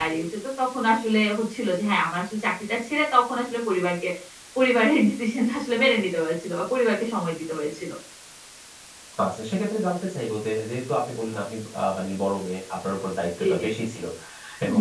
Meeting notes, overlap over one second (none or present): none